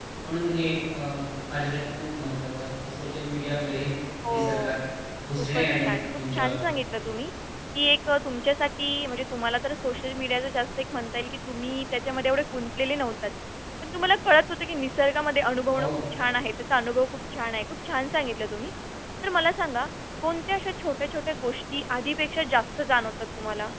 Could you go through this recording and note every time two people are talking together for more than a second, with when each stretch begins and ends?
5.4-6.7

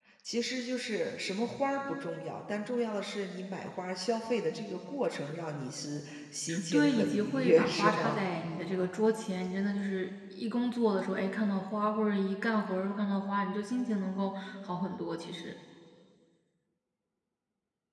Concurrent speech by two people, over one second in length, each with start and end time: 6.7-8.2

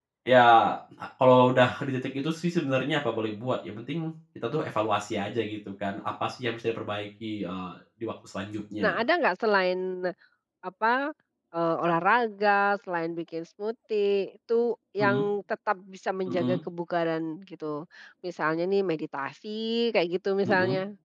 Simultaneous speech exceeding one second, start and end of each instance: none

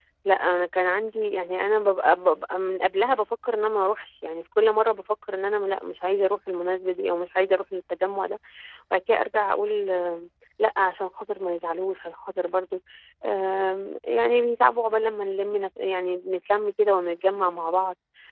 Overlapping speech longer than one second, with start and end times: none

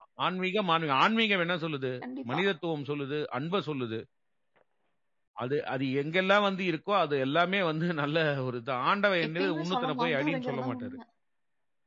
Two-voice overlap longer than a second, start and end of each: 9.3-11.0

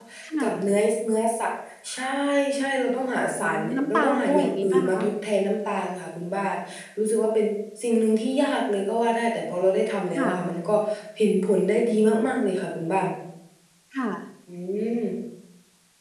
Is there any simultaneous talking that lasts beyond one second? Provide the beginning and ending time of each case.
3.4-5.0

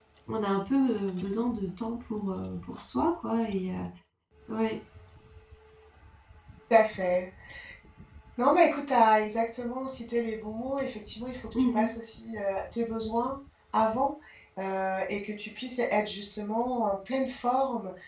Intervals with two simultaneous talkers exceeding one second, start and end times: none

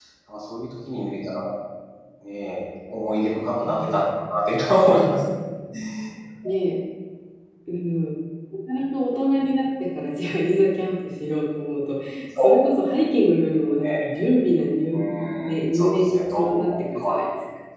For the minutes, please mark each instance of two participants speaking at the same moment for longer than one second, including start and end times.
14.9-17.2

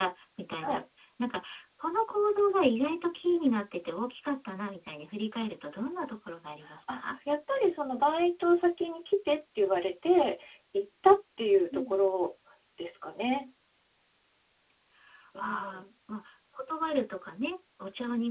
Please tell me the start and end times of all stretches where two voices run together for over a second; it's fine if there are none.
none

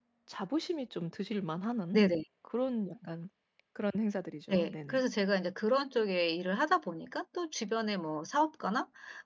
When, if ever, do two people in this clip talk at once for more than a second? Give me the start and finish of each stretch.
none

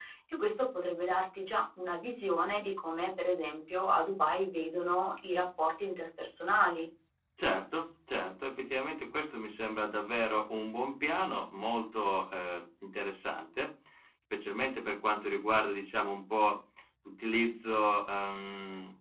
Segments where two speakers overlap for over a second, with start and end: none

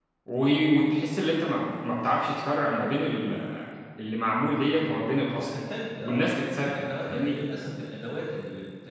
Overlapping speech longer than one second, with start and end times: 6.0-7.3

